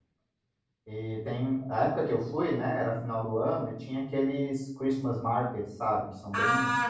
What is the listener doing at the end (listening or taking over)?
taking over